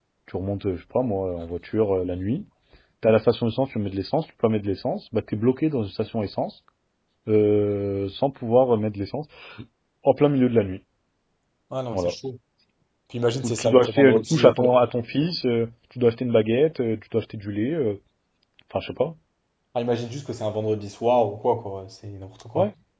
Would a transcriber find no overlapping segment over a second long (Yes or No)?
No